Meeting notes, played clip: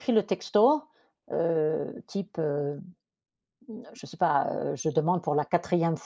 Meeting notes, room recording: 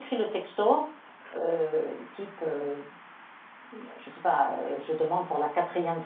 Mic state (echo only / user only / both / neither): echo only